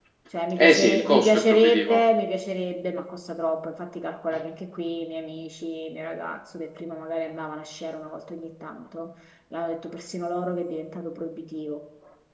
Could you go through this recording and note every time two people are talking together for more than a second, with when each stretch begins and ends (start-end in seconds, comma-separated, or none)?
0.6-2.0